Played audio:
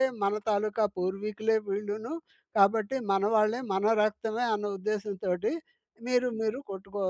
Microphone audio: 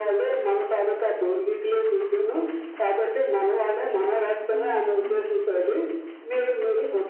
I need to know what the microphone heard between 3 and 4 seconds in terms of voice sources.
echo only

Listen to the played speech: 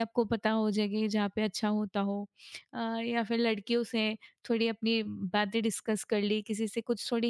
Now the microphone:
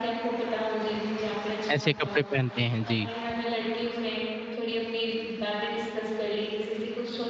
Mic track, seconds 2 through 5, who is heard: both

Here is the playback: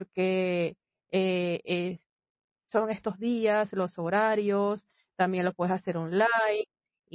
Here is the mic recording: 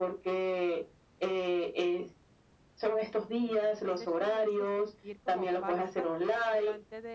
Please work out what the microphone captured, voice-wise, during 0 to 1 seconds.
echo only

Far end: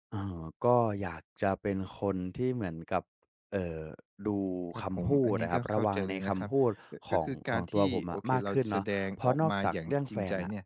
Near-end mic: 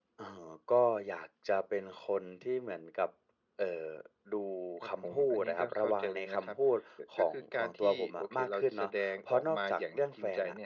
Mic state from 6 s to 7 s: echo only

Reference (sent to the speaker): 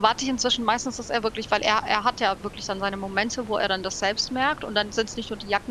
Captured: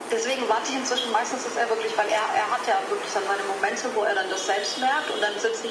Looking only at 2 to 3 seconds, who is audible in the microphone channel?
echo only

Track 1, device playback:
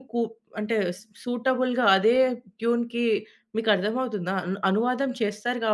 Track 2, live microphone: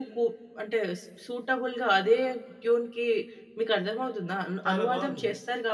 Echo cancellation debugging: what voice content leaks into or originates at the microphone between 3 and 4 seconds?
echo only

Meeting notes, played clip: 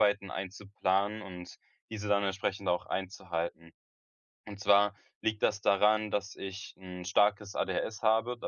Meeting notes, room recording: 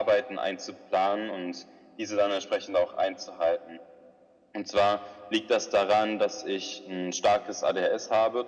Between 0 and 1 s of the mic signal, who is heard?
echo only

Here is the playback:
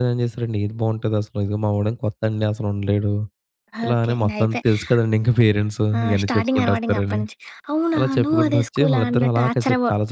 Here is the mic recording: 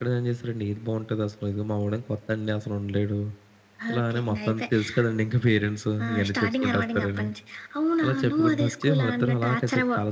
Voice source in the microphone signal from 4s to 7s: echo only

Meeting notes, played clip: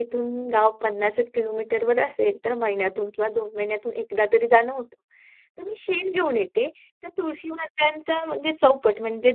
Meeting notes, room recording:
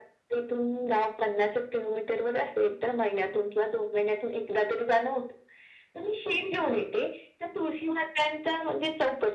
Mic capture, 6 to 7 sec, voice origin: echo only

